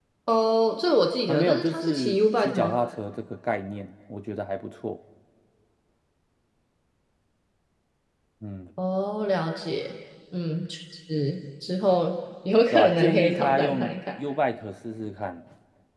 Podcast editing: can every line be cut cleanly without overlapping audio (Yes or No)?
No